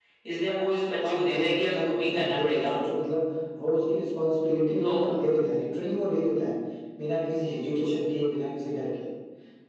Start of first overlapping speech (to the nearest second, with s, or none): 1 s